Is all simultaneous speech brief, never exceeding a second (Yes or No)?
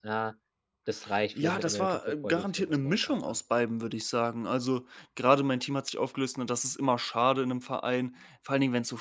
No